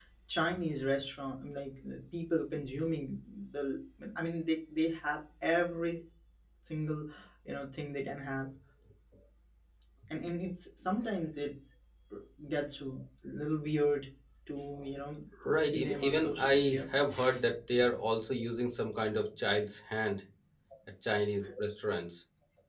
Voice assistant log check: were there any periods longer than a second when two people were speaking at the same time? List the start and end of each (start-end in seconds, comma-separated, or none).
15.6-16.9